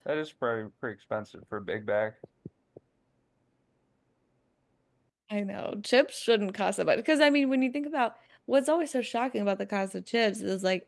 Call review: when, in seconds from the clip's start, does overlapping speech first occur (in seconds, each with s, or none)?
none